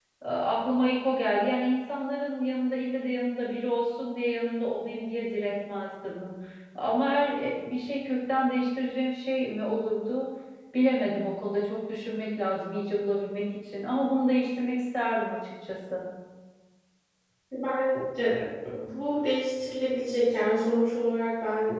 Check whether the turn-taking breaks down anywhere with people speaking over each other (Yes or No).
No